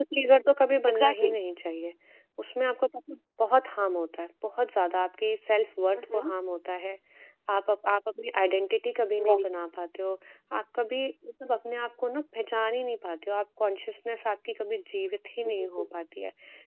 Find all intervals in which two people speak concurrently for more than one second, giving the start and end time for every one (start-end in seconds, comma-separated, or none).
none